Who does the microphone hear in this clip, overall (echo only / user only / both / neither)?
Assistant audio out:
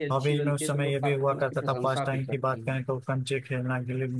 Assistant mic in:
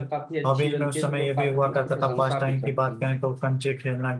echo only